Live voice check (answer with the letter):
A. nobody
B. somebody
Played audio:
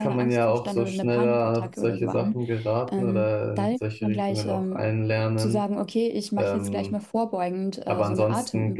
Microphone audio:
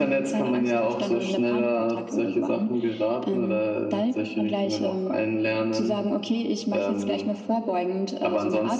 A